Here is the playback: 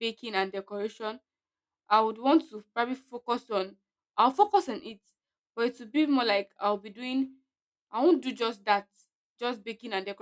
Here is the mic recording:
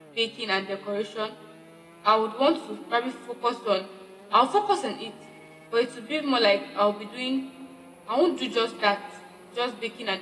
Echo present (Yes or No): Yes